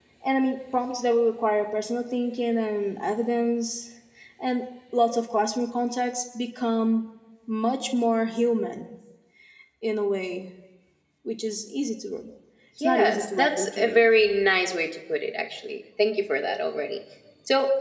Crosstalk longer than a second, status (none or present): present